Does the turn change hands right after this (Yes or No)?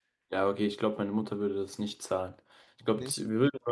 No